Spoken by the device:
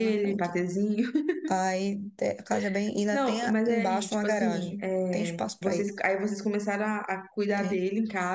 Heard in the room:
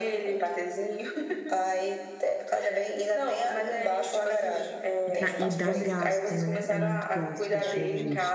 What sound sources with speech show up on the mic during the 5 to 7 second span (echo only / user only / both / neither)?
both